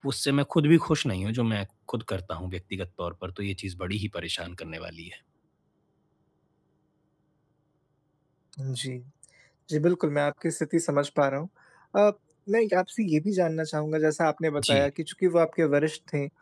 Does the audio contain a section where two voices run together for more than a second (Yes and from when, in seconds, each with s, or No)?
No